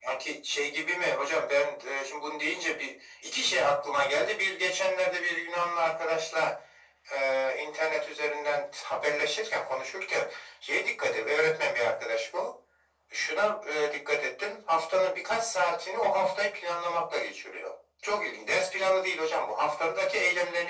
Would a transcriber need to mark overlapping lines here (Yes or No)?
No